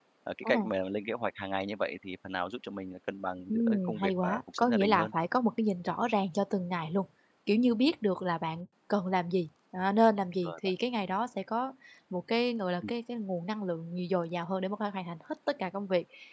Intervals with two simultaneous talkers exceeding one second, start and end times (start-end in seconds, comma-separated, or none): 3.5-5.1